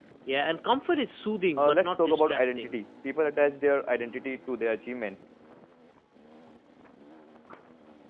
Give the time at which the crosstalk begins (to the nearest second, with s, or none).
2 s